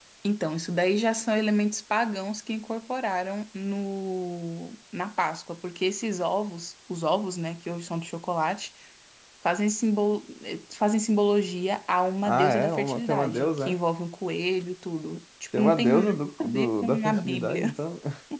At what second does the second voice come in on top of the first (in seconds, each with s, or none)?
12.2 s